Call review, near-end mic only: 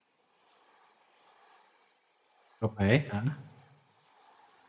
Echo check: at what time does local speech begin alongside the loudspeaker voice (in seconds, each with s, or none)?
2.6 s